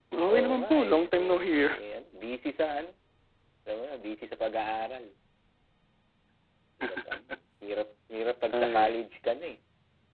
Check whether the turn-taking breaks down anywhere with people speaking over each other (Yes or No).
Yes